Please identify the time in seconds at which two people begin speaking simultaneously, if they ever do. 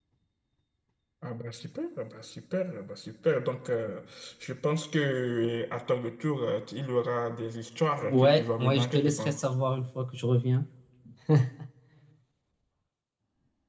8 s

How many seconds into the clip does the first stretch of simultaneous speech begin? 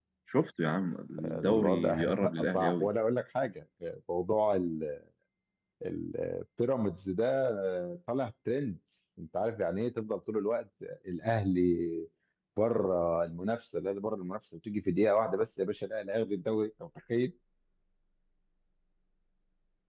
1 s

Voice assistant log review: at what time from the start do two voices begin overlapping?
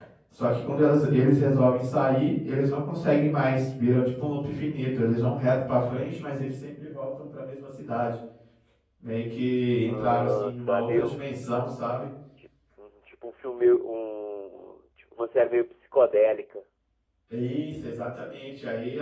10 s

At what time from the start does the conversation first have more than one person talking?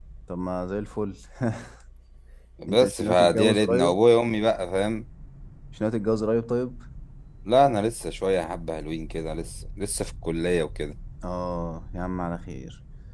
3 s

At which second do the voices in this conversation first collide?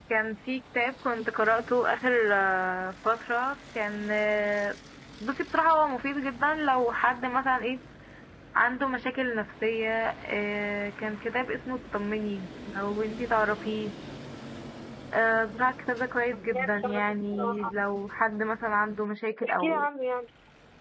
16 s

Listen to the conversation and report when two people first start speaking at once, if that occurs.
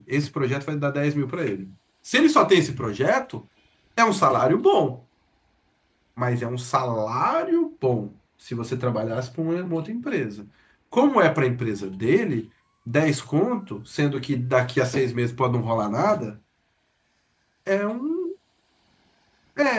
none

